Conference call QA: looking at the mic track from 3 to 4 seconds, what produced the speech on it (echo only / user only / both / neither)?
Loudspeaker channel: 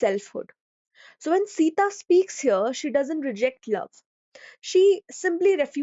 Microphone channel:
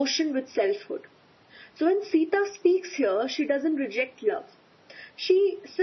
echo only